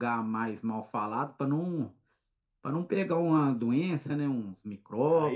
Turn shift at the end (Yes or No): Yes